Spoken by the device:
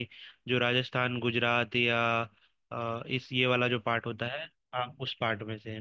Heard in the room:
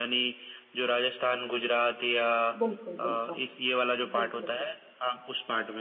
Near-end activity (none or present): present